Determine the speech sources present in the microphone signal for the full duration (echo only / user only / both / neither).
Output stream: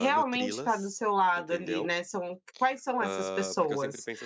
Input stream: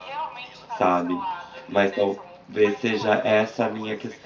both